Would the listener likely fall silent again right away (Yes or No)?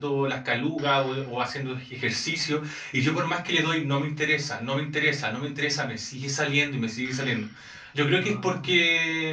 Yes